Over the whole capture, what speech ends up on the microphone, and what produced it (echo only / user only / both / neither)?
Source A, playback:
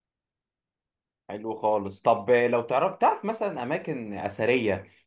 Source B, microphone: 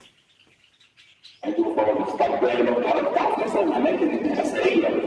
echo only